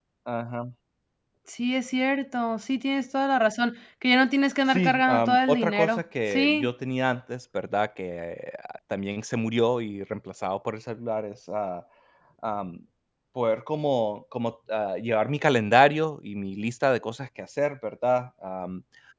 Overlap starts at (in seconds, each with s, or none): 4.7 s